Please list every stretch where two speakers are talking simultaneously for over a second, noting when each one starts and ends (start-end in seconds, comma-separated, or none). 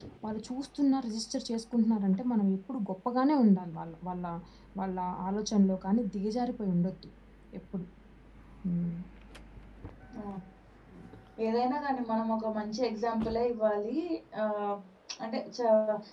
none